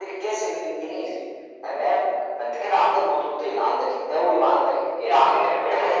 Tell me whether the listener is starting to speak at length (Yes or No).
Yes